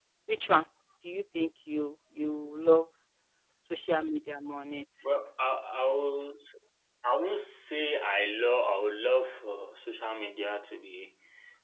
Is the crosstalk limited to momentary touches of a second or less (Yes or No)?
Yes